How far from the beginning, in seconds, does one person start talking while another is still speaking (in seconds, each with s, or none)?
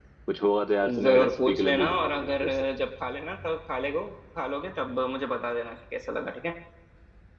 1.0 s